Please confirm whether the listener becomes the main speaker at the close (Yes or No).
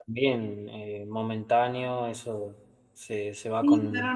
Yes